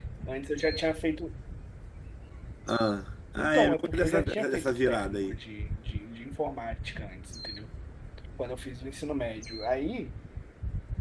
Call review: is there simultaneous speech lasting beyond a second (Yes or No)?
Yes